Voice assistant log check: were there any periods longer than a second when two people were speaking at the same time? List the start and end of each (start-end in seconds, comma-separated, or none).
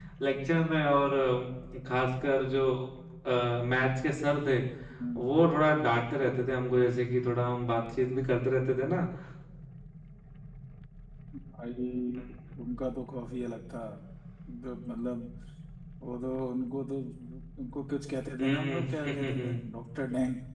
18.4-19.6